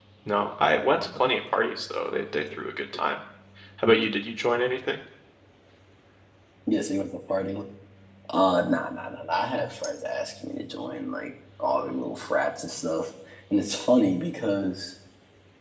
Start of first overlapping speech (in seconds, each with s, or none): none